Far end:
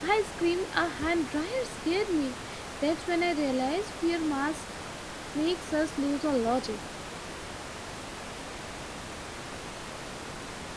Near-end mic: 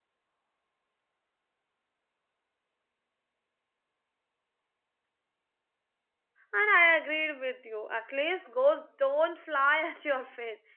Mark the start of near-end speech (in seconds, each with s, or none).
6.5 s